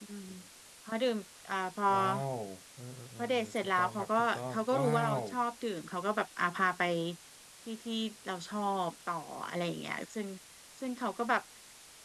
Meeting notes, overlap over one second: present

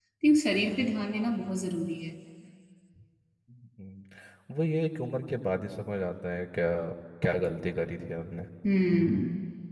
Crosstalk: none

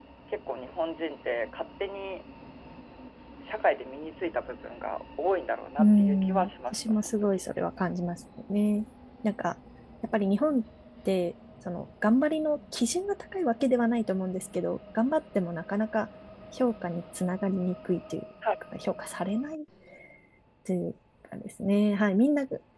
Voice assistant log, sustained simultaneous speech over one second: present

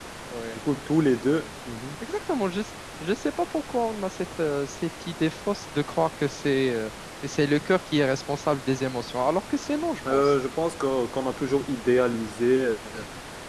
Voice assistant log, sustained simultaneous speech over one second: none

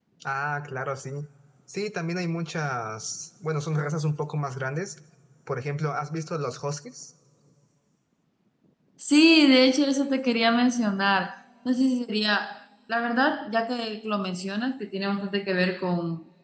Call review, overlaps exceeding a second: none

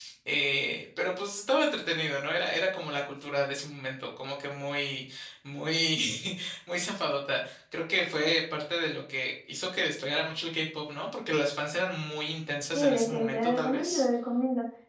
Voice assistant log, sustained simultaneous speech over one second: present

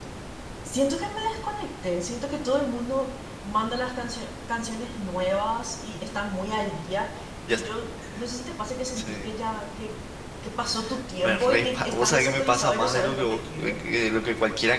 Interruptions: present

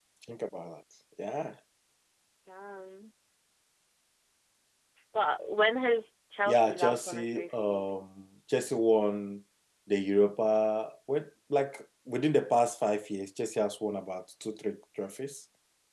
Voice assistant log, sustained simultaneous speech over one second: present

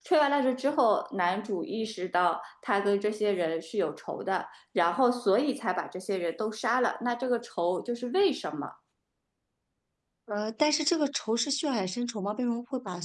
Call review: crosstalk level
none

